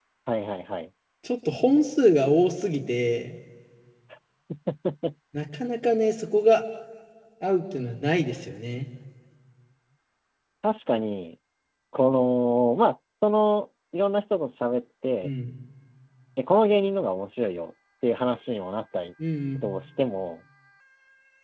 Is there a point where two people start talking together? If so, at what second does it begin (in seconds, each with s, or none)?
none